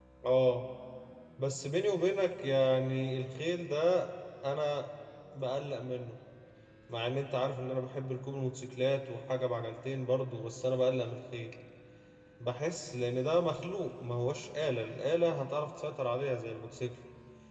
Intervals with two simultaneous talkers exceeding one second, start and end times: none

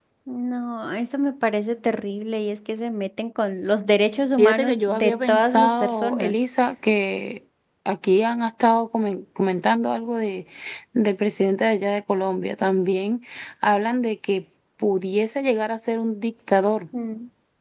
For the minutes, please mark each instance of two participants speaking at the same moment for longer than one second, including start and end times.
4.4-6.4

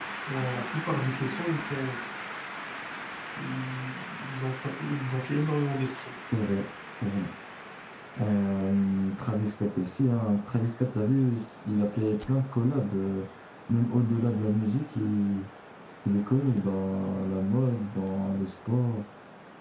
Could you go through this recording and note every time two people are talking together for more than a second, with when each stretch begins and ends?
none

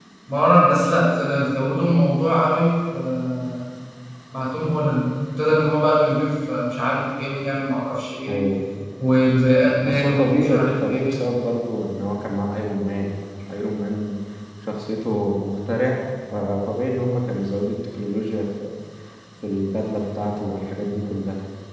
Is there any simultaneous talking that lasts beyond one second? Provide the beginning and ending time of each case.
9.8-11.1

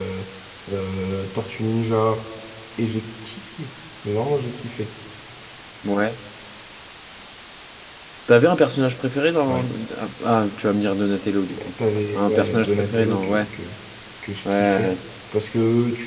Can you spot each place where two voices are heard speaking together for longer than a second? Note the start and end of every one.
12.1-13.5

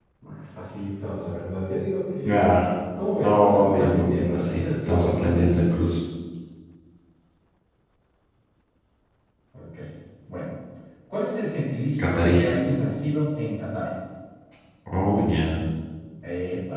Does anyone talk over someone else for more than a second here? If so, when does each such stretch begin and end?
3.2-5.9

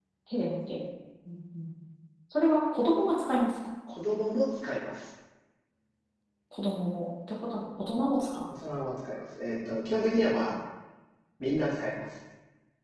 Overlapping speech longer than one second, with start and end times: none

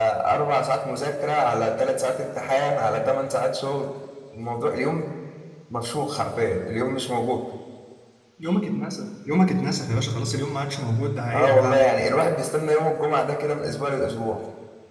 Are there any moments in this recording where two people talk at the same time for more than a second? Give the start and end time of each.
none

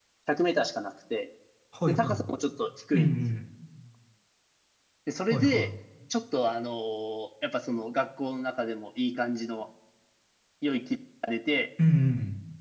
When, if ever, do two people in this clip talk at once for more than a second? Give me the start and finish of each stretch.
none

